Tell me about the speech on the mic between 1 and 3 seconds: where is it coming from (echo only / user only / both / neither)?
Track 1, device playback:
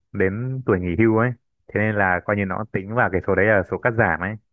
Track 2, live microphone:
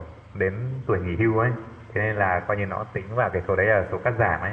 echo only